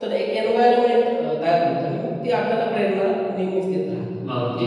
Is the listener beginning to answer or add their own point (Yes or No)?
Yes